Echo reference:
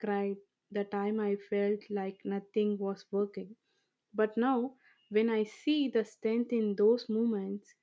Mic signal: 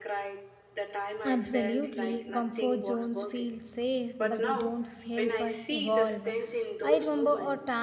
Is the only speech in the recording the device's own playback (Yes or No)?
No